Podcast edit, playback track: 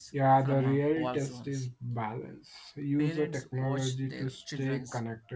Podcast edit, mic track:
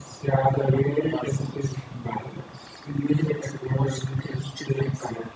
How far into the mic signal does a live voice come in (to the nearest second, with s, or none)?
none